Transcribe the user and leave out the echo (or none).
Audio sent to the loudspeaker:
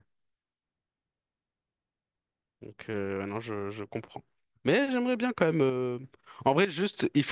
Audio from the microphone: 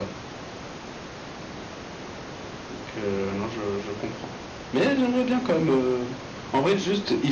none